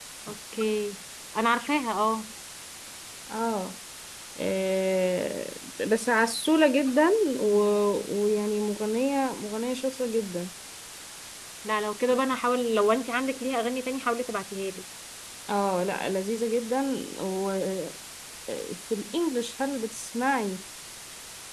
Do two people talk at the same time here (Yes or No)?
No